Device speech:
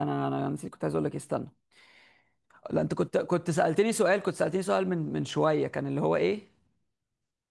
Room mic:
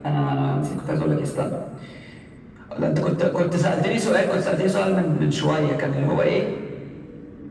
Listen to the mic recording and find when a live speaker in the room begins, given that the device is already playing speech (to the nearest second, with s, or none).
none